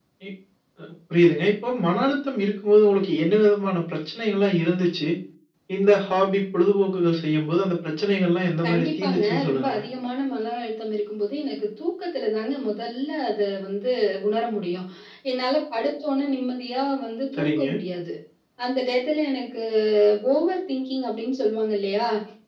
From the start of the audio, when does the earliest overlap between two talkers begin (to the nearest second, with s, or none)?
9 s